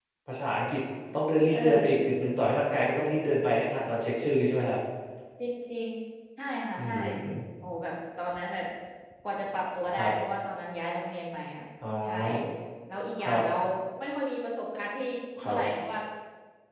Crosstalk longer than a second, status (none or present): none